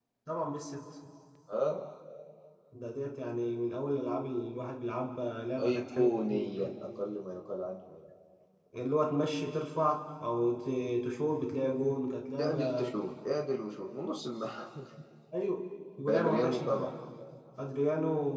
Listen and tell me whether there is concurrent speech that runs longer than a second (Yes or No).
Yes